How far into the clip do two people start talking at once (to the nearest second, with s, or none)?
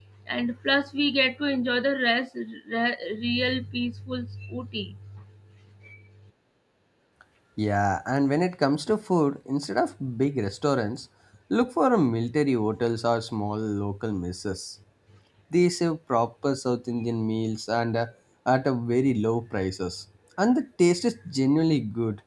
none